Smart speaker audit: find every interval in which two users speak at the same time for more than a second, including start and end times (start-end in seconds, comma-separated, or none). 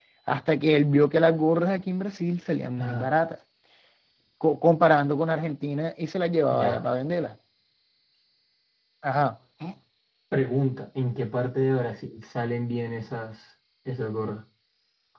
none